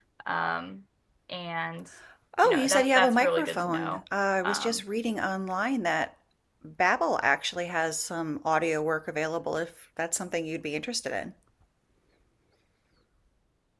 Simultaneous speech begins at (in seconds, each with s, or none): 2.4 s